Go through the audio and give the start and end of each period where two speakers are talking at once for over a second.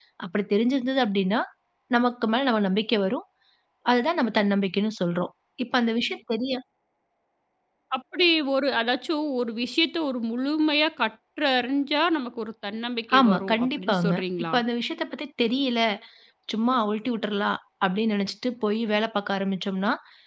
13.2-14.6

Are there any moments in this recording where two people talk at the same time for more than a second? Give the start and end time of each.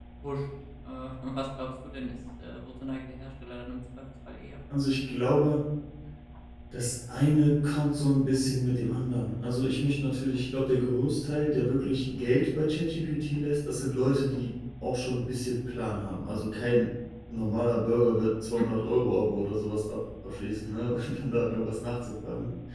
none

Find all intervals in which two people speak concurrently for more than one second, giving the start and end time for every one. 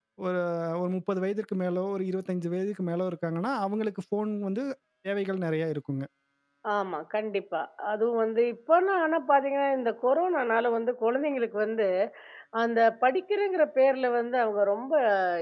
none

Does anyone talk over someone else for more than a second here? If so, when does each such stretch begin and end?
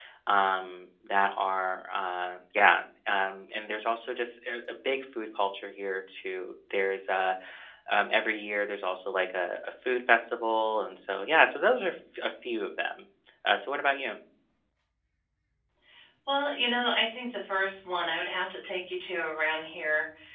none

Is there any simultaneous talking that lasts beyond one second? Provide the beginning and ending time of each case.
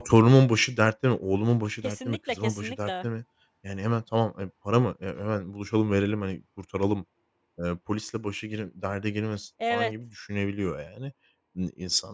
1.8-3.0

